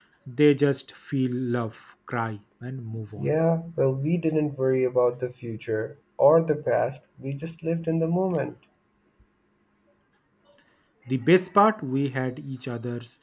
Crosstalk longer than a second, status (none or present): none